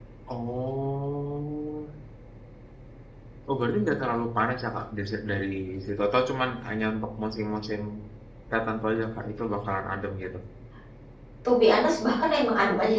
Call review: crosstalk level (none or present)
none